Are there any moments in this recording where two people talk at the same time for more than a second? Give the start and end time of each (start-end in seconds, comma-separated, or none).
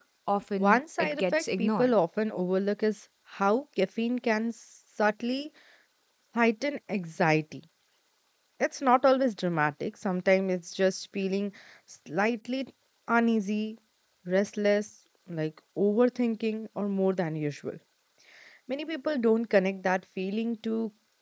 0.6-2.0